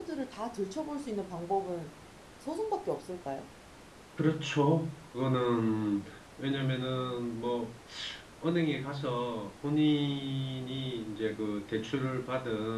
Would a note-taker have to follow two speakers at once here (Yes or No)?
No